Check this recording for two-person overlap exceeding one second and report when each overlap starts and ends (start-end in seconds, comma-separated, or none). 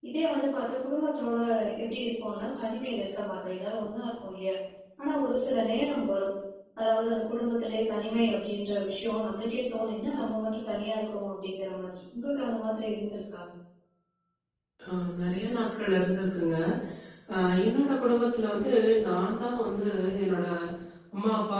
none